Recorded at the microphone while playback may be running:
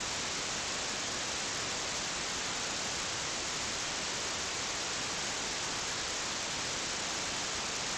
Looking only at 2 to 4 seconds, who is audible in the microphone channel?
neither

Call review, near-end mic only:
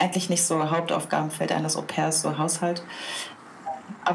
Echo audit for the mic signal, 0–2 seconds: echo only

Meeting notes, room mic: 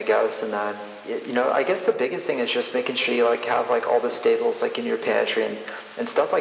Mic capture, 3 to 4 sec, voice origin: echo only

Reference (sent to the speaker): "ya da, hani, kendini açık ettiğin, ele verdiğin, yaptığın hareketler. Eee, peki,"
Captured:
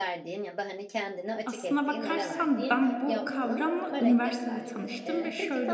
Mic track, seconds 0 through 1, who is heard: echo only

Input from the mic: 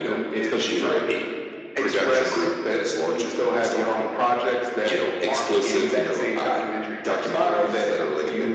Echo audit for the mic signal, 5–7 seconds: echo only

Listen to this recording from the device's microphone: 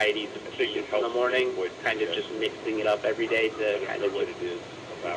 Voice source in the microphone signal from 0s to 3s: echo only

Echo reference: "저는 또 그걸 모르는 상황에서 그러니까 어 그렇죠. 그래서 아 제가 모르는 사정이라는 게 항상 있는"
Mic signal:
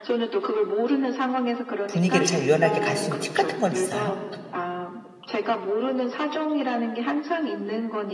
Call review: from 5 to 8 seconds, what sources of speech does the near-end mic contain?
echo only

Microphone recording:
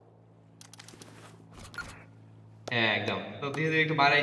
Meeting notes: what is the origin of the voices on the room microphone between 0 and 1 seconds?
neither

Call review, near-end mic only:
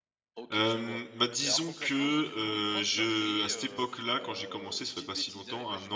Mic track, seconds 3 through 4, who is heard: both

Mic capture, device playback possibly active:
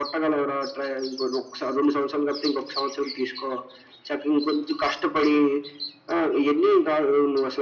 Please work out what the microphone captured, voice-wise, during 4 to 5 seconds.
echo only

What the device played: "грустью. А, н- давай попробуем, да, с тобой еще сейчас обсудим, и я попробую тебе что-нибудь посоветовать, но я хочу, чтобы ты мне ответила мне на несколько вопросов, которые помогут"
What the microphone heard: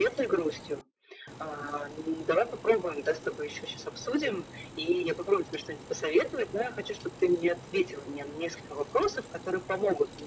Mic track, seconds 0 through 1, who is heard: echo only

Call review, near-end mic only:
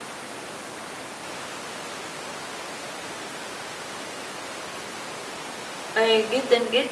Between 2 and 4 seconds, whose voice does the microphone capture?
neither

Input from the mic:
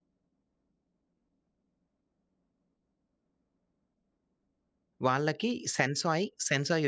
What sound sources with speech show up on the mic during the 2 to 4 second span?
neither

